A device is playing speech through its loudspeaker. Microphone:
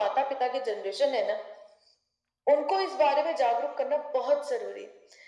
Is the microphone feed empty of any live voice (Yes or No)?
Yes